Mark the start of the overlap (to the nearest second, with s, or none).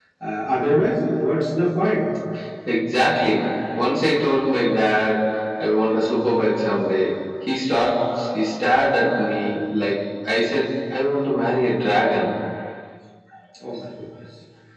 none